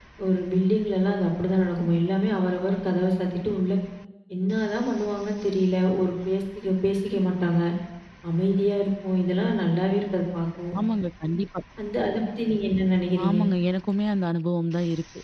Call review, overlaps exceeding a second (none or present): none